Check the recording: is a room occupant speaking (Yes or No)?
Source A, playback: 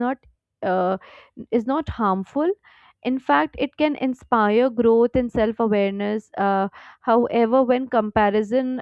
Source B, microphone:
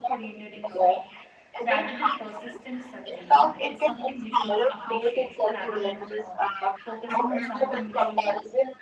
Yes